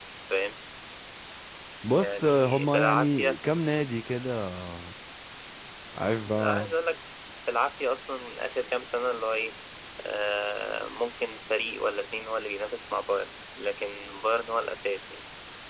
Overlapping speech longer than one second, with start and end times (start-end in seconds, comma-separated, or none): 1.9-3.4